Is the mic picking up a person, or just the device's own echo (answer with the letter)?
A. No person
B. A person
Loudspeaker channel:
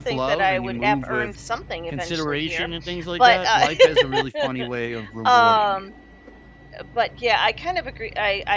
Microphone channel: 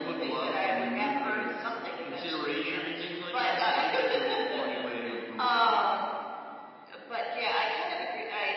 A